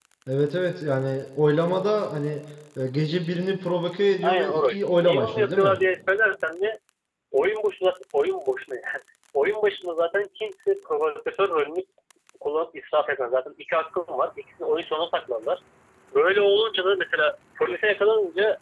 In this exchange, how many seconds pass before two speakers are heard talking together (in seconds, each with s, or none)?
4.2 s